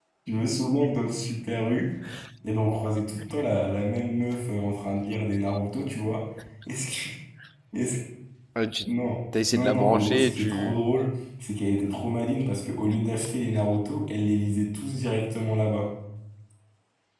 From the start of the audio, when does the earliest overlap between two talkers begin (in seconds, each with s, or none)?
9.5 s